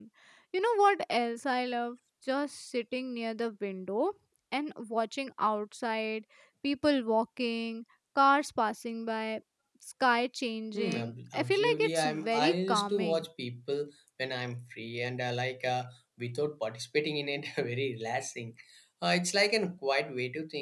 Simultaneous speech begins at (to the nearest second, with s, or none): 11 s